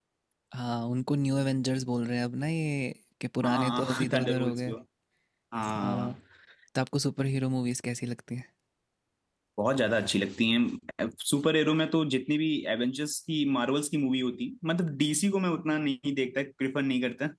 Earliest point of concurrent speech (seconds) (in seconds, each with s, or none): 3.4 s